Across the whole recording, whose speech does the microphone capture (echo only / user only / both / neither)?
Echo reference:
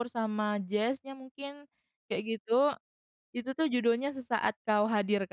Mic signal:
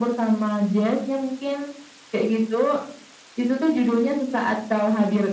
echo only